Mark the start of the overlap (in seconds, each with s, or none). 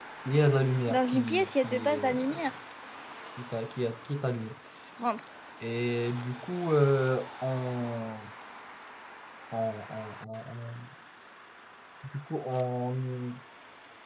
0.9 s